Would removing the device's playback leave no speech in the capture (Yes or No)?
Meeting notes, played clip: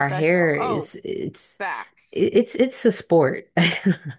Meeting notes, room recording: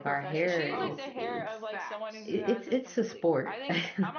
No